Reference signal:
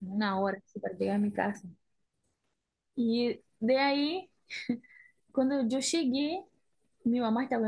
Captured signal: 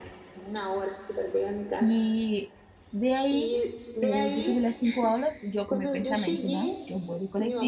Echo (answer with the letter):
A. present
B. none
A